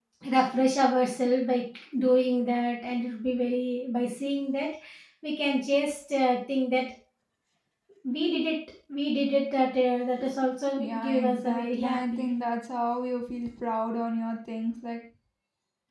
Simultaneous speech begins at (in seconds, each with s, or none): 10.8 s